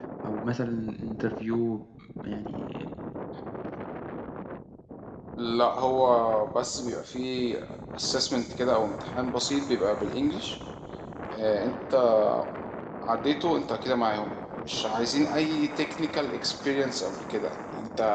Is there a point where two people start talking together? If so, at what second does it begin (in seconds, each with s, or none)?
none